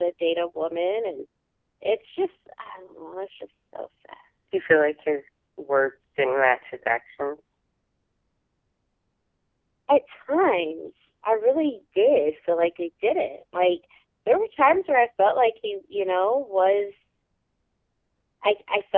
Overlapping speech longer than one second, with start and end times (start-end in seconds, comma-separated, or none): none